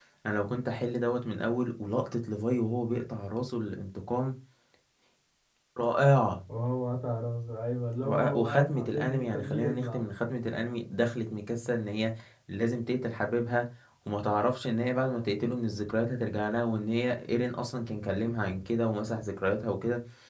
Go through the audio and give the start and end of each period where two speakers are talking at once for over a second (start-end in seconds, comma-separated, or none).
8.0-10.0